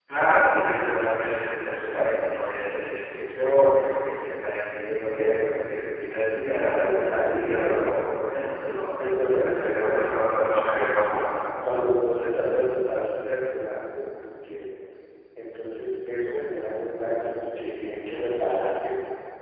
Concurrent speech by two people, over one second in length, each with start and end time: 6.5-7.9, 9.6-11.0

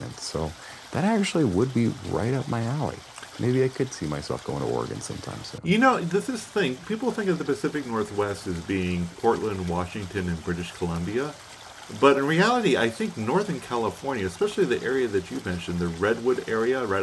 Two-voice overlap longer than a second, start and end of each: none

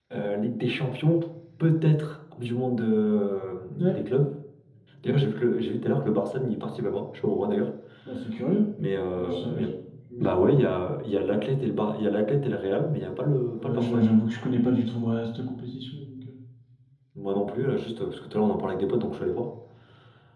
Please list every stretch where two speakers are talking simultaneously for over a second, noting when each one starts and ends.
none

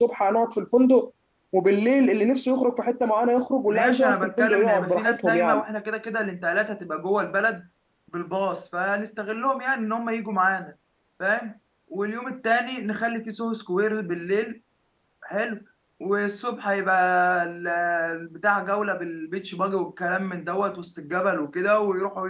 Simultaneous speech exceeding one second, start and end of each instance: 3.7-5.6

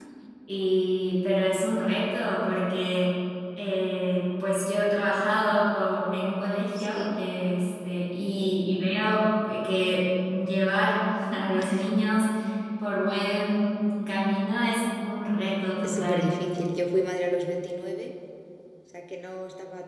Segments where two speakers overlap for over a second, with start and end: none

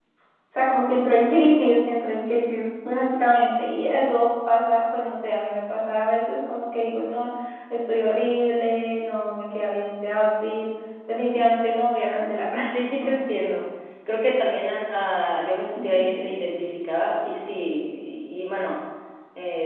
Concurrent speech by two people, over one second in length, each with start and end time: none

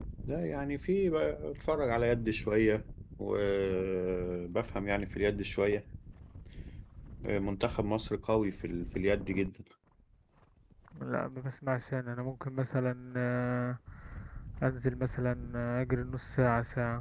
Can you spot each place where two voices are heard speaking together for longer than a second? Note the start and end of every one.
none

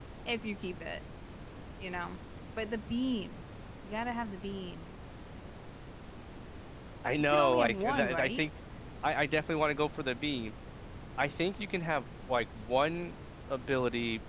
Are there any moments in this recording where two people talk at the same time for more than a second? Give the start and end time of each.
7.2-8.5

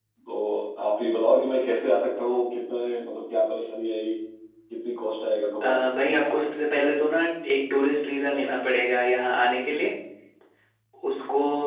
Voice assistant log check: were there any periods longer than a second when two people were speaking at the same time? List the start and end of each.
none

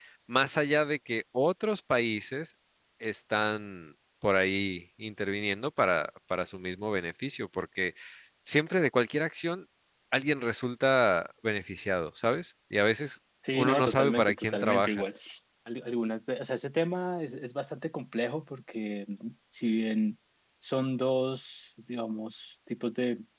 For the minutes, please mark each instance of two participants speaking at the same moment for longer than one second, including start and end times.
13.5-15.0

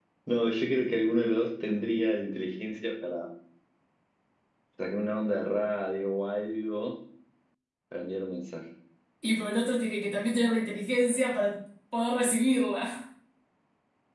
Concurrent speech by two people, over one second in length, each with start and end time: none

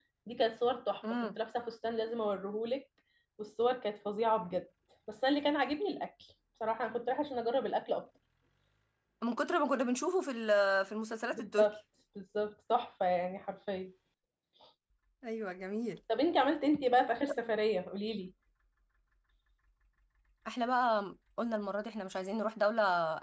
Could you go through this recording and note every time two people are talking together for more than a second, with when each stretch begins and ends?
none

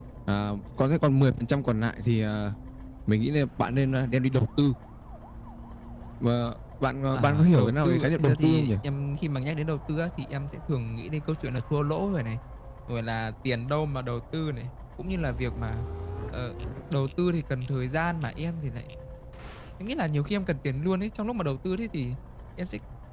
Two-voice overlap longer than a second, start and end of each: 7.1-8.7

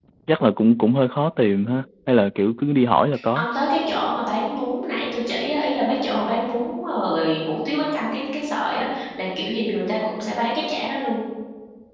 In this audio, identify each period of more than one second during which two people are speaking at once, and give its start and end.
none

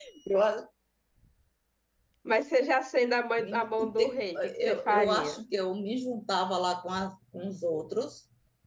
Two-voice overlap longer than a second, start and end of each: 3.4-5.4

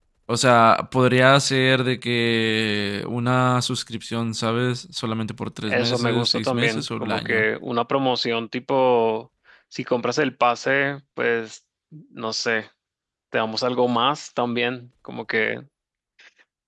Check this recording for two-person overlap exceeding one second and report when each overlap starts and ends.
5.7-7.4

